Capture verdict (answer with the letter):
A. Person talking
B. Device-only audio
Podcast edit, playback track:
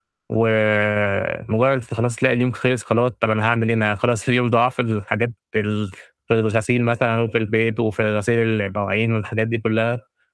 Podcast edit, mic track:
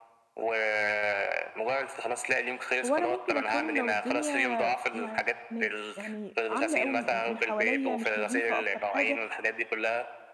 A